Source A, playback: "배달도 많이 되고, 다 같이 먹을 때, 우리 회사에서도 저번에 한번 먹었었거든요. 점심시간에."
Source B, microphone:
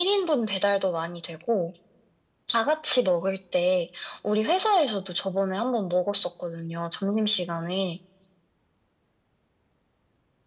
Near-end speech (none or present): none